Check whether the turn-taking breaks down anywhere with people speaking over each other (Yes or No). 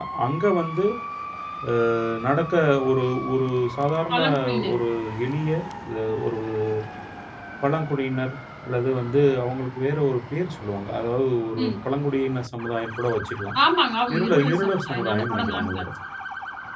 Yes